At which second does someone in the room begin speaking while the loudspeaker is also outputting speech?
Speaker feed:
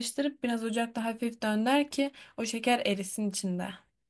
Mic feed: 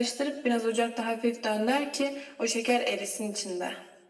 none

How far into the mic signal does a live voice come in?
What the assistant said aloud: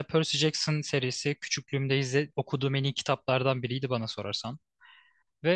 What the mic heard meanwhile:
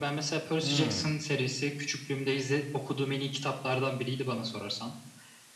1 s

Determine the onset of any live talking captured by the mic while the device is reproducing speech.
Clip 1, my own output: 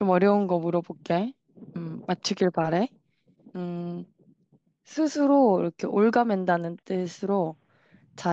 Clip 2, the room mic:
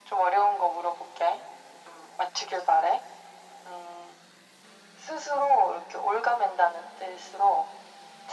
none

